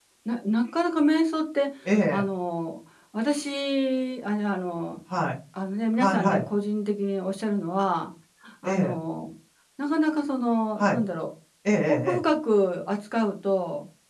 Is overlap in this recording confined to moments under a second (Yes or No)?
Yes